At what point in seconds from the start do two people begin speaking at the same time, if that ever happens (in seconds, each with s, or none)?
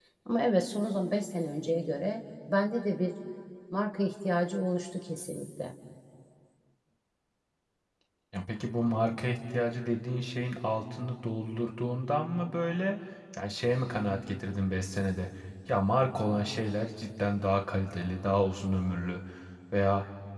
none